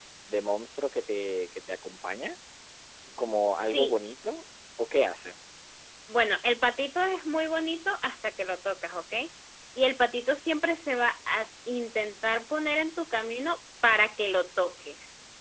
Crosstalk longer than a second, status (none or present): none